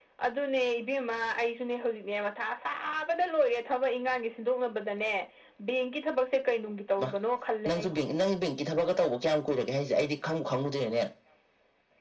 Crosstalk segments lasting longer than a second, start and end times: none

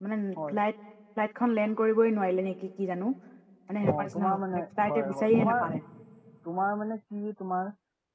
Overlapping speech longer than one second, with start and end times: 3.8-5.6

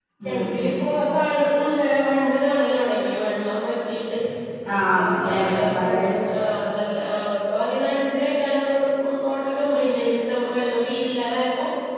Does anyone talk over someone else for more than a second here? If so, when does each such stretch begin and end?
5.0-6.2

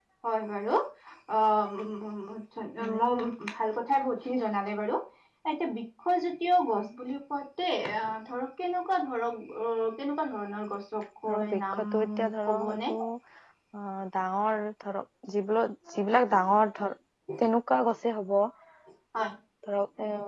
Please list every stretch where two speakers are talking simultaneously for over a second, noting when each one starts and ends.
11.3-12.9

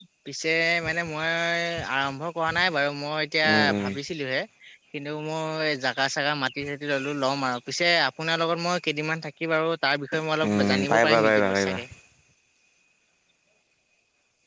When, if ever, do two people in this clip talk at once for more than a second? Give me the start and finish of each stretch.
10.4-11.8

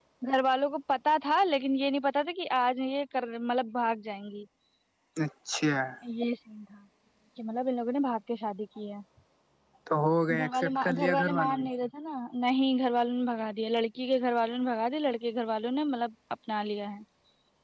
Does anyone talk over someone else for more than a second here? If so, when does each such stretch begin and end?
10.4-11.7

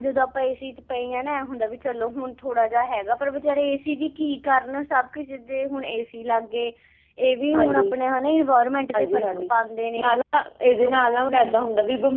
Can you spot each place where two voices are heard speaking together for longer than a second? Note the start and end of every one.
none

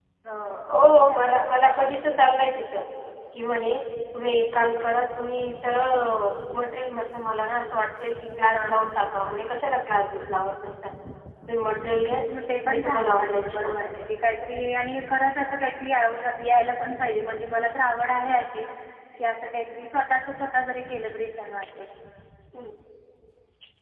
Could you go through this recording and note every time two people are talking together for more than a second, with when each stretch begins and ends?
12.7-14.1

